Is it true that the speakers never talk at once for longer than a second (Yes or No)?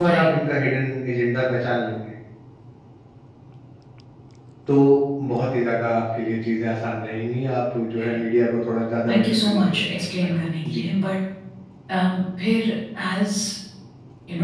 No